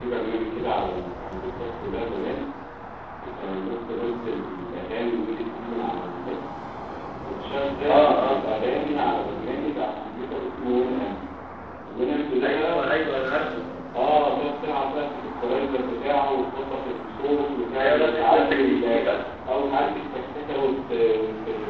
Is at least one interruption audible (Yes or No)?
Yes